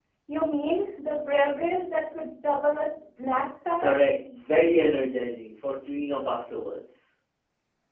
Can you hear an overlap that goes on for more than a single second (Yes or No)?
No